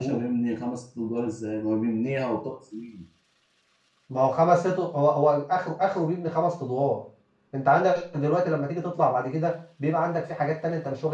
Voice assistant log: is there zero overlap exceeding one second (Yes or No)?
Yes